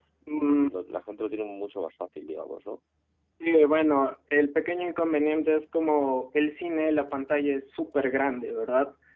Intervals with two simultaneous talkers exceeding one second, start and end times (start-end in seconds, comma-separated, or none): none